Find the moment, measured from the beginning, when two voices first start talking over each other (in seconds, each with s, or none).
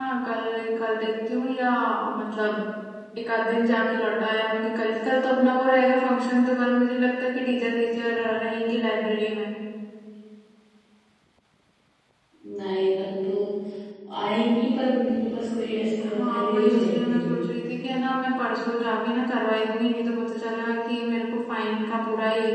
16.0 s